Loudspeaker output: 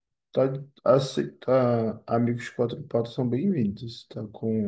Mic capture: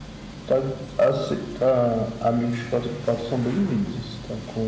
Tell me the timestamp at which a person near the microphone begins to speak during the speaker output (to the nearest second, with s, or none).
none